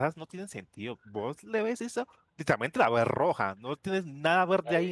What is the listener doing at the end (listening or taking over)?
taking over